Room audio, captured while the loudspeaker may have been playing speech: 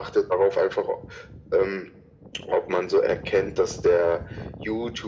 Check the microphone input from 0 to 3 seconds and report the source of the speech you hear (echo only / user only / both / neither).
echo only